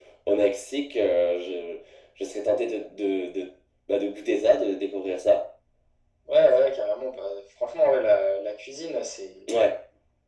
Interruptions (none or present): none